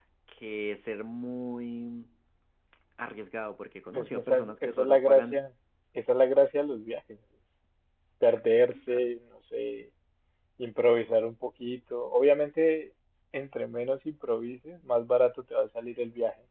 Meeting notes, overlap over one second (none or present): present